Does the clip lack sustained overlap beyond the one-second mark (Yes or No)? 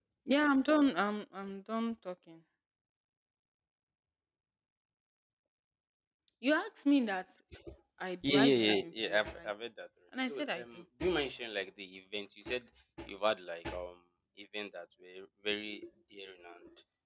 No